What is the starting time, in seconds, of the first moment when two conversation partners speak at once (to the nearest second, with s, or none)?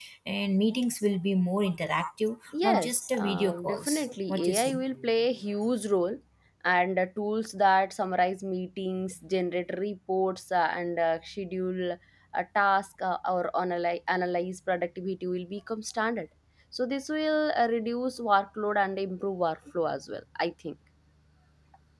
3 s